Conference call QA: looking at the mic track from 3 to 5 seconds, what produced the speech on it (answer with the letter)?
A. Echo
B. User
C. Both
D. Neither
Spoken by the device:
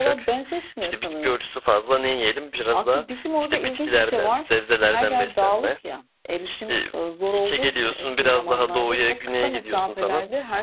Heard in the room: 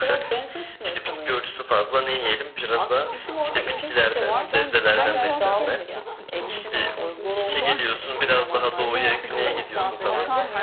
C